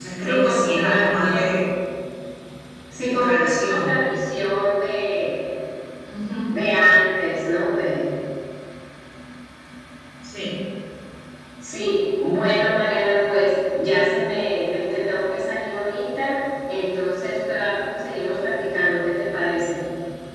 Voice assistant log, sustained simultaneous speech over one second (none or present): present